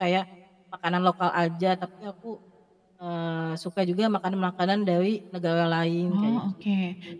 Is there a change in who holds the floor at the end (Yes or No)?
Yes